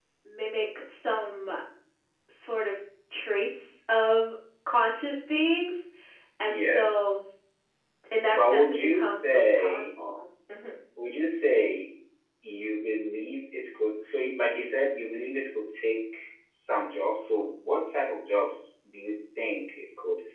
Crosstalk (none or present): present